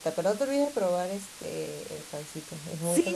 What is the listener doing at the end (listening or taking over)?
taking over